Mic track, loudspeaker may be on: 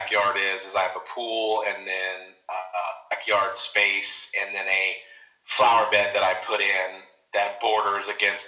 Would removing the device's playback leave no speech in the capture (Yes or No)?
Yes